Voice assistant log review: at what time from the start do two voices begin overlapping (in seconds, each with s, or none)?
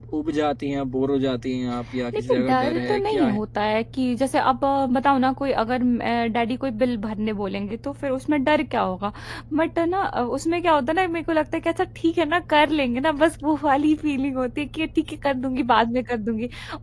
2.1 s